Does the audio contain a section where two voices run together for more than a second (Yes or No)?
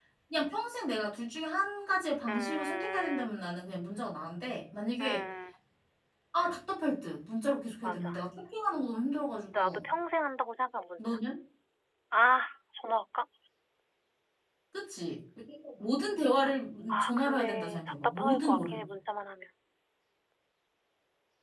Yes